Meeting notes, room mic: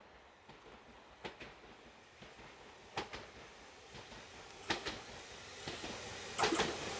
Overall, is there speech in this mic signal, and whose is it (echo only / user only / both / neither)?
neither